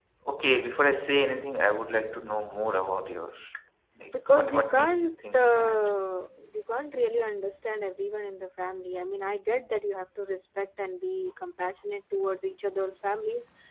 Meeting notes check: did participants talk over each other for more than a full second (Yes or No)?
Yes